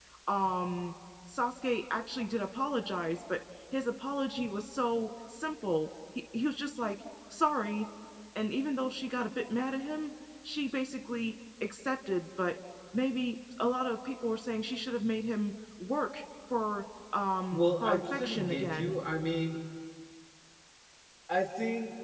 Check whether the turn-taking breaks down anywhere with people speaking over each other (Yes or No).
Yes